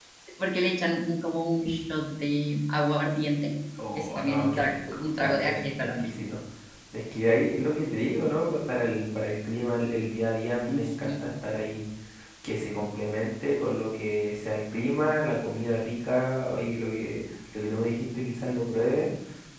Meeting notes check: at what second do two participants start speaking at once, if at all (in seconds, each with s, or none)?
4.0 s